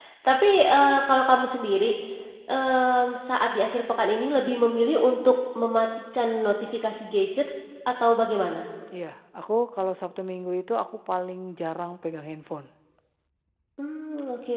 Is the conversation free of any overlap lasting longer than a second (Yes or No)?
Yes